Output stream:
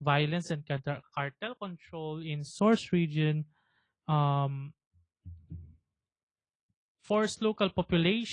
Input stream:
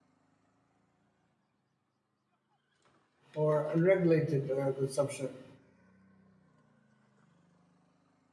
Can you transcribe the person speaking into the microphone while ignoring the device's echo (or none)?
or unregulated uh, consumption.